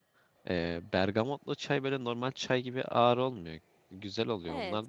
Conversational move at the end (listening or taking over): taking over